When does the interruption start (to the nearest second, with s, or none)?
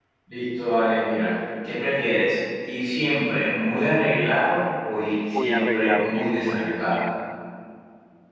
5 s